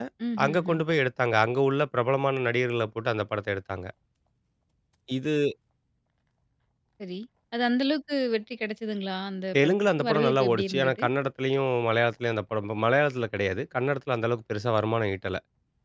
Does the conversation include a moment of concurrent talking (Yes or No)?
Yes